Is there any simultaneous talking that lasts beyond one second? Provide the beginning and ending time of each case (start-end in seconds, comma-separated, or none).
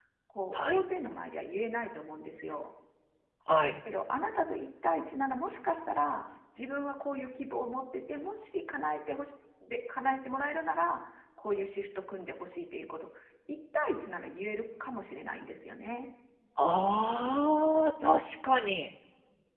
none